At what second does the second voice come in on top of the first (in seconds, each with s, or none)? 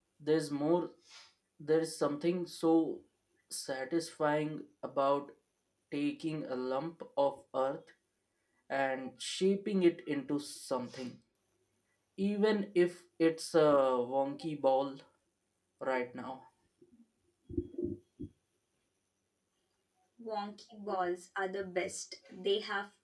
none